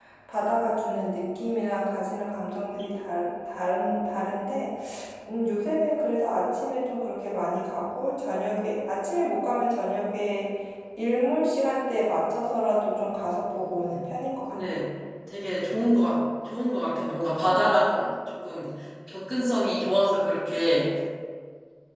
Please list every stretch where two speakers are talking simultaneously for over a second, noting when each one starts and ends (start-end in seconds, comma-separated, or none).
none